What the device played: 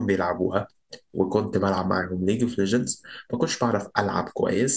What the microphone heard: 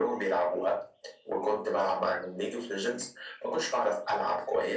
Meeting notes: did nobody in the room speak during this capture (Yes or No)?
Yes